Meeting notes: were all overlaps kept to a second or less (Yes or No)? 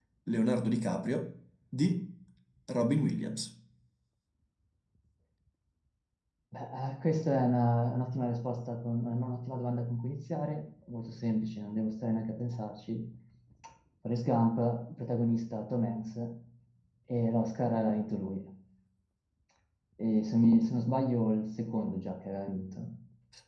Yes